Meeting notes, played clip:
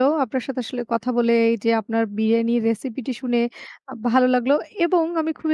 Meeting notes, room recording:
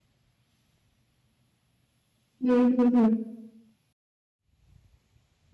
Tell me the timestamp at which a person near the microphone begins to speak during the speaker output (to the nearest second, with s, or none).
2 s